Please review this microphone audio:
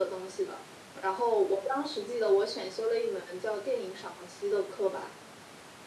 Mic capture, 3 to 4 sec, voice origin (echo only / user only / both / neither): echo only